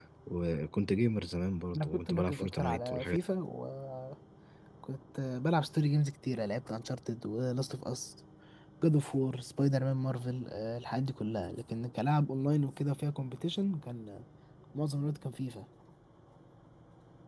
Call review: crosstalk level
present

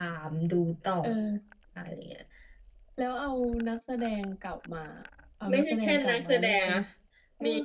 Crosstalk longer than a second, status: present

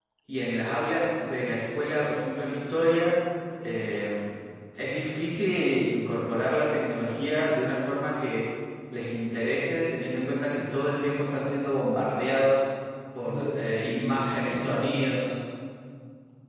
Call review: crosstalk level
present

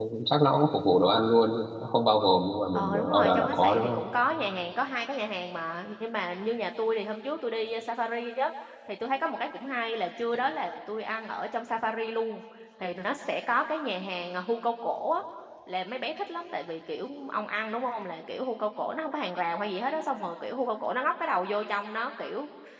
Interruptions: present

